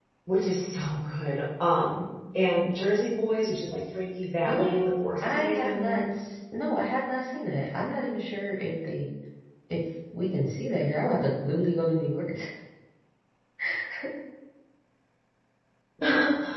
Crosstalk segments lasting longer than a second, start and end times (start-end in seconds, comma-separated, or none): 4.5-6.3